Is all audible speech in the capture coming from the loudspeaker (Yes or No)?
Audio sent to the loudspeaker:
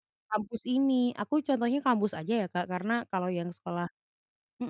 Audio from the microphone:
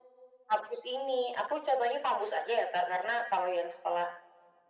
Yes